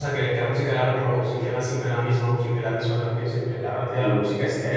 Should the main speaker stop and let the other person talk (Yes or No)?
No